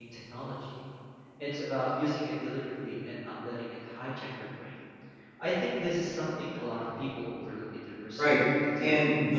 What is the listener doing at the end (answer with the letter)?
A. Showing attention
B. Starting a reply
B